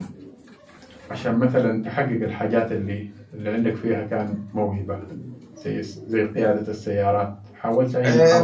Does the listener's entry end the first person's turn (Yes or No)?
Yes